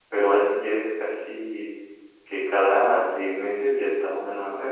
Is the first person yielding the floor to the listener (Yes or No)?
Yes